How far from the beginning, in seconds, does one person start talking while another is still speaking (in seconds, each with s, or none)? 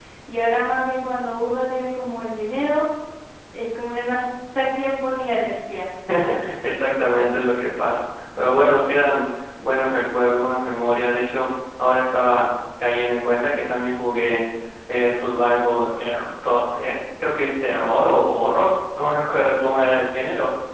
none